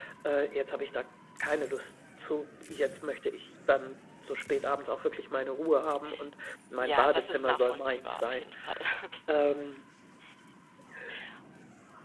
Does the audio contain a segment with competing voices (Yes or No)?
Yes